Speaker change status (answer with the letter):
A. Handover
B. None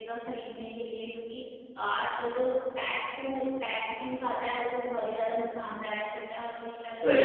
B